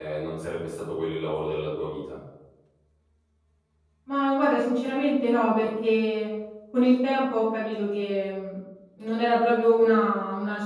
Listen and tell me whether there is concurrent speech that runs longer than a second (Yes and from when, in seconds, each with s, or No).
No